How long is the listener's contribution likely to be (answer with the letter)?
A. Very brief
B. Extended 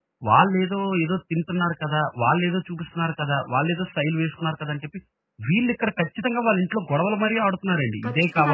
B